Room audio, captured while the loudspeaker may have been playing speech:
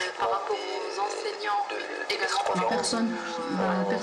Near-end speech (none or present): present